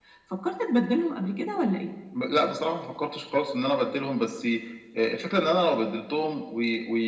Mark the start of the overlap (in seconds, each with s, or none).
none